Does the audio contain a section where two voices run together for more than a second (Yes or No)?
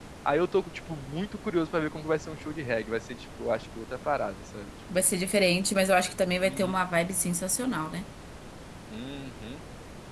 No